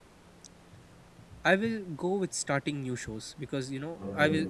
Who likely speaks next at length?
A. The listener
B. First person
B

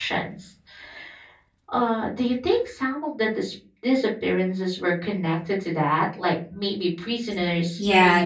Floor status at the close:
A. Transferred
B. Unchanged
A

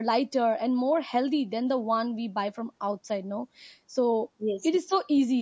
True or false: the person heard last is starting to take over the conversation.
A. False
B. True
A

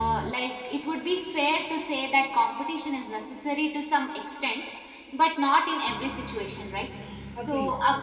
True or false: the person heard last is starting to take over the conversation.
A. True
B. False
B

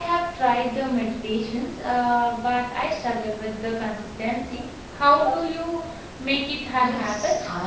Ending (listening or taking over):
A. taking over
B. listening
A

